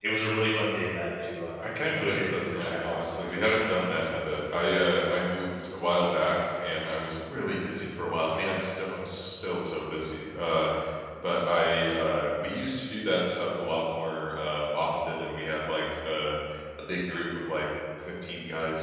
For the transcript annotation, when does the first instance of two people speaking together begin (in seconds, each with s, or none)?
1.6 s